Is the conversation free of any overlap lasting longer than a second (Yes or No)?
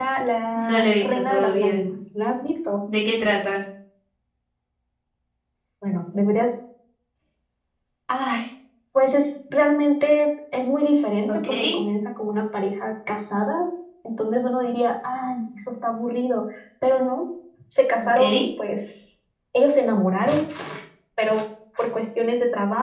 No